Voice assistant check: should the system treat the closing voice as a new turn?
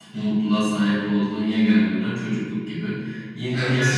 No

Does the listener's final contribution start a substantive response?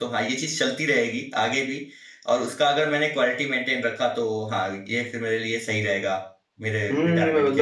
Yes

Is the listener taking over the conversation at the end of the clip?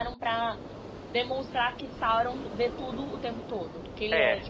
Yes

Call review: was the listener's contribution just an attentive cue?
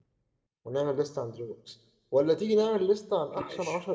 Yes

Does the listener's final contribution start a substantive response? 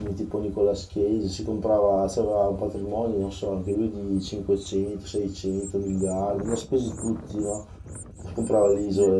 No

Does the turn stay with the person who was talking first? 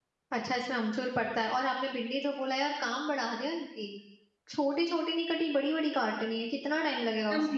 No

